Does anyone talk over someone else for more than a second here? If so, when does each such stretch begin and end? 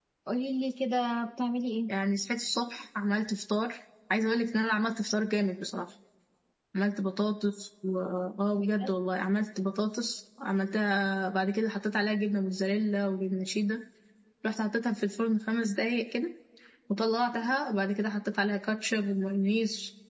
none

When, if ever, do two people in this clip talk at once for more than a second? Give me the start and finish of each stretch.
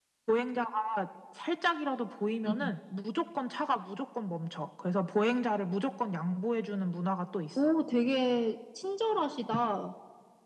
none

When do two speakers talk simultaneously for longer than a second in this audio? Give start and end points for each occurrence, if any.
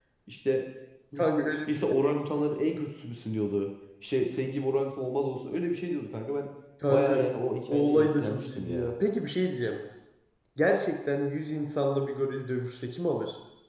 7.7-8.9

